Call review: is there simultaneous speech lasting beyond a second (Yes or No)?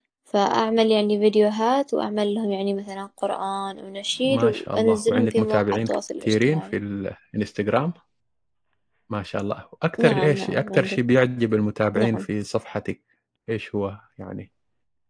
Yes